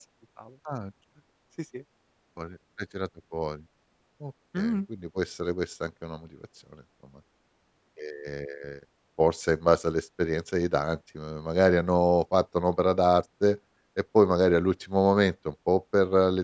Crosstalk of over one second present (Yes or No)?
No